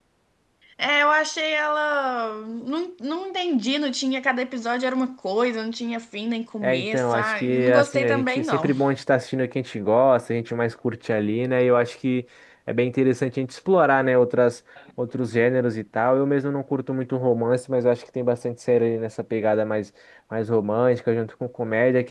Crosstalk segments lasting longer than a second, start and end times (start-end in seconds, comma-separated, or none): 6.6-8.7